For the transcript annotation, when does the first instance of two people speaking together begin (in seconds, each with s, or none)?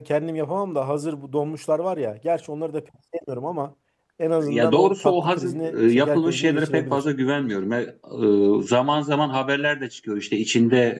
4.5 s